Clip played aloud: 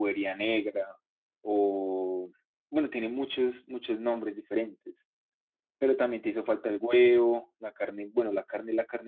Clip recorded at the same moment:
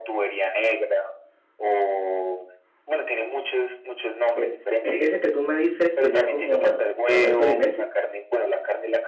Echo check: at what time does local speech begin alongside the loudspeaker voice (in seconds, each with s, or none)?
4.3 s